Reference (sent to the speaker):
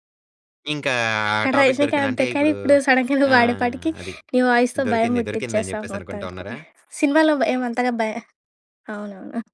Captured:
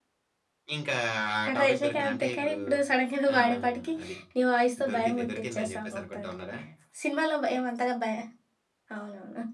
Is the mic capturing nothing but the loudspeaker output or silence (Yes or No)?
Yes